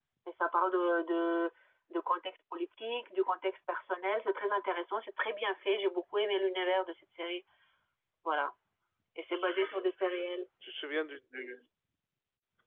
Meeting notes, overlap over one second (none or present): none